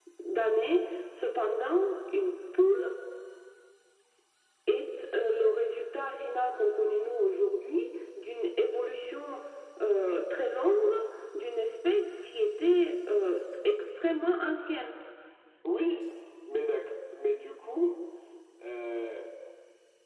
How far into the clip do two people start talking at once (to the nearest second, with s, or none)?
none